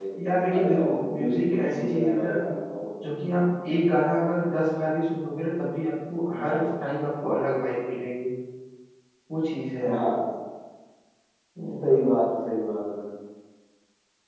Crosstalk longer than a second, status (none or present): present